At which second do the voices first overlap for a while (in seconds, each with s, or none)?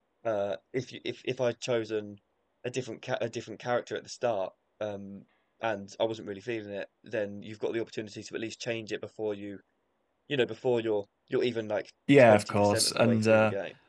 12.1 s